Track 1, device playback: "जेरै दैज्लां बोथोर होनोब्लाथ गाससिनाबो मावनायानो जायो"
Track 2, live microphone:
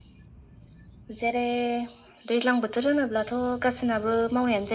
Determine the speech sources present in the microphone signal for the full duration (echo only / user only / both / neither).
echo only